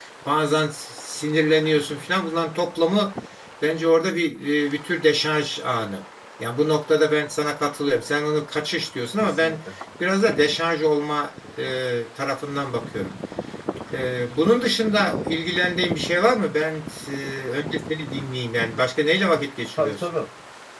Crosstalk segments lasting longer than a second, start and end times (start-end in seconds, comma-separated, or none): none